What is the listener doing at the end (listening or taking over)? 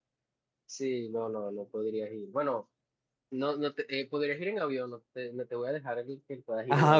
taking over